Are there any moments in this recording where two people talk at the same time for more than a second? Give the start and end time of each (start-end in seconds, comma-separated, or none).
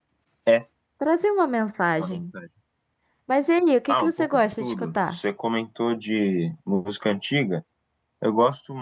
3.9-5.2